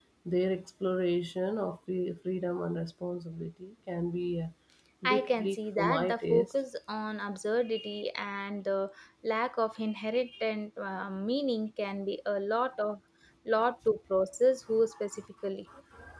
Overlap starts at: 5.1 s

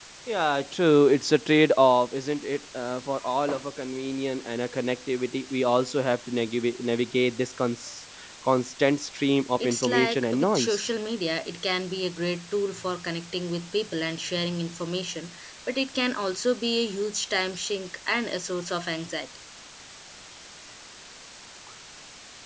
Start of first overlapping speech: 9.6 s

